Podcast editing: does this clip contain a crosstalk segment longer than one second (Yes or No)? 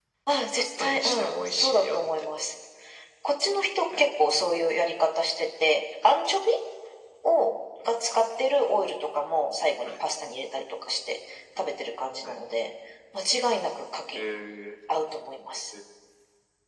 Yes